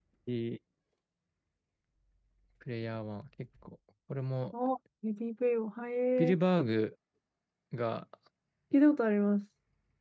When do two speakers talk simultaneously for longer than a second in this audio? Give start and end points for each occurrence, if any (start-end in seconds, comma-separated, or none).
none